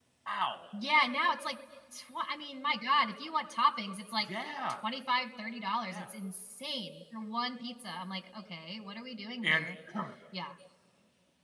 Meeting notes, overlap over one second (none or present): none